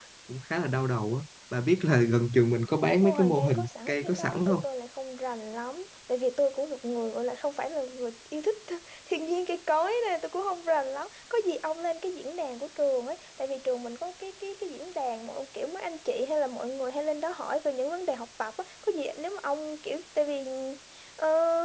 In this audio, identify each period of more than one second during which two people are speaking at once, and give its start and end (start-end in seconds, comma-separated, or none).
3.0-4.5